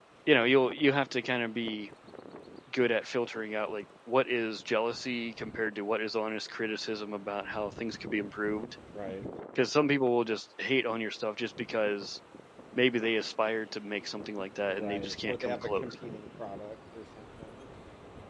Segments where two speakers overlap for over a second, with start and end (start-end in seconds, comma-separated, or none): 14.7-15.9